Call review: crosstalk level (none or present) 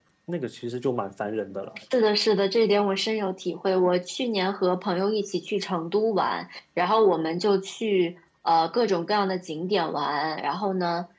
none